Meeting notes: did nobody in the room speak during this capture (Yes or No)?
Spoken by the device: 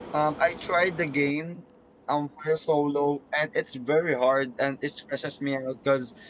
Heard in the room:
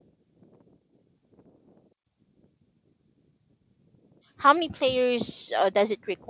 No